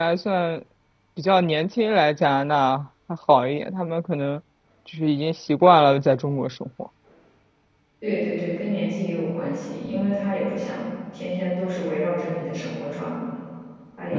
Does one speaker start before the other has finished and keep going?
No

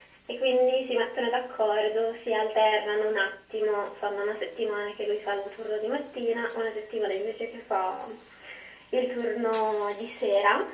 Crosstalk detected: No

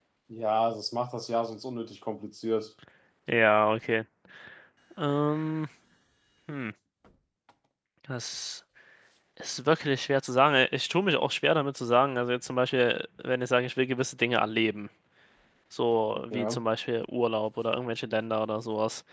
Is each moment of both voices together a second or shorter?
Yes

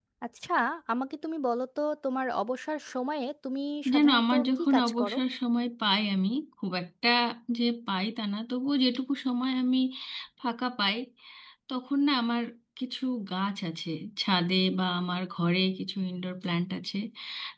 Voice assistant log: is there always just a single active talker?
No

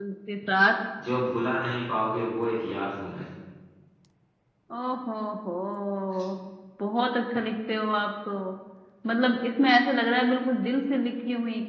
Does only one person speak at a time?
Yes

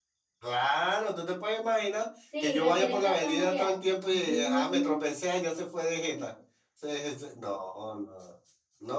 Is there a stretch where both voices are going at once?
Yes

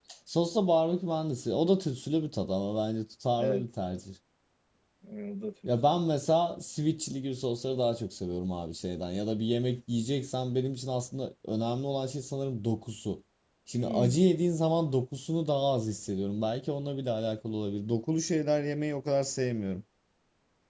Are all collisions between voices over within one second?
Yes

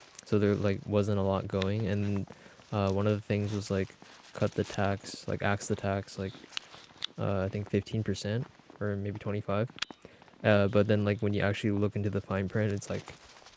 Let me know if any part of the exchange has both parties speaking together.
No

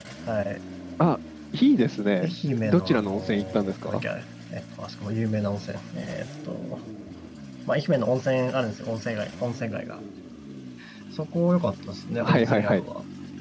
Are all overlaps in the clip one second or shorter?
No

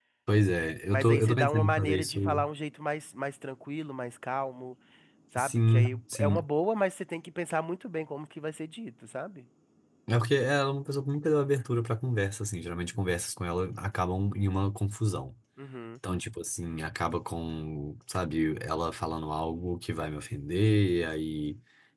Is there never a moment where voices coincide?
No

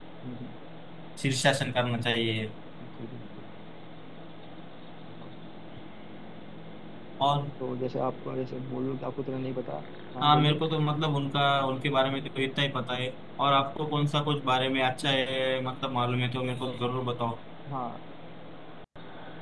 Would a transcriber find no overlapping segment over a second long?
Yes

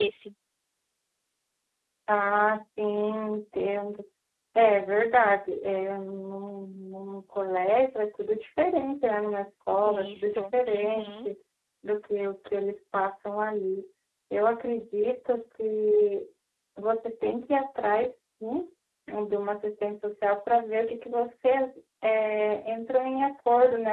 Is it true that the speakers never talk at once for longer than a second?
No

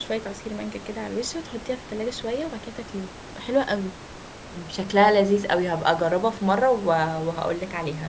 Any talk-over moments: No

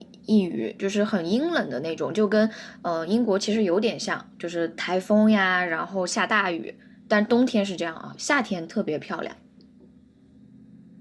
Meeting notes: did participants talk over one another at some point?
No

